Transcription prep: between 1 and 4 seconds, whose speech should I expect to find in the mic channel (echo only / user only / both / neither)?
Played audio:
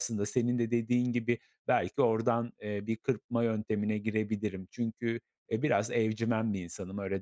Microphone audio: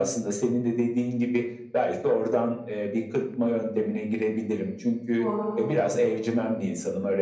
echo only